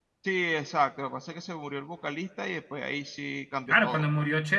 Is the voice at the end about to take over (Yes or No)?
Yes